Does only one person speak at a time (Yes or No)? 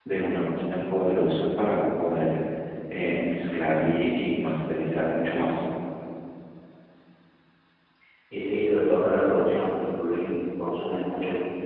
Yes